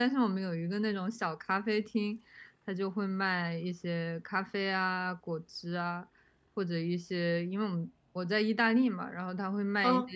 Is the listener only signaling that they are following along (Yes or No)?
Yes